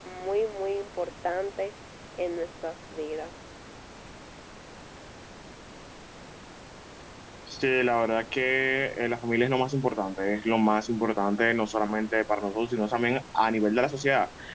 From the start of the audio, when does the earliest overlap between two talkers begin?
none

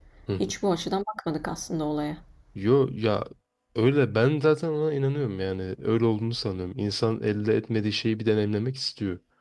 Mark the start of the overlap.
none

